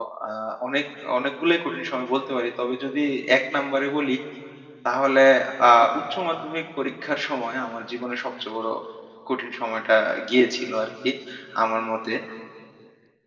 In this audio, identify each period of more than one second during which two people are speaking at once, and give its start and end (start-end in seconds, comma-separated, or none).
none